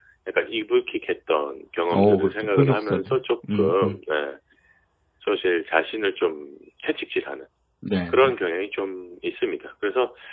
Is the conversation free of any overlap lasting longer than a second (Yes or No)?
No